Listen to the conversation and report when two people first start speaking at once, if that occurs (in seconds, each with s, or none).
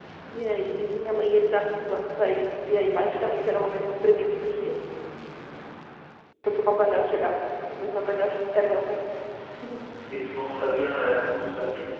none